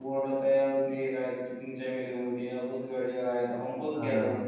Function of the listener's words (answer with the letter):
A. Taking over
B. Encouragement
A